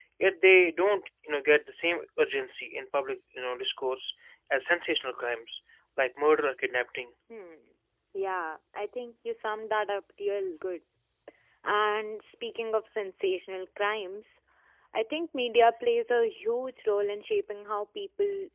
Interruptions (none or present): none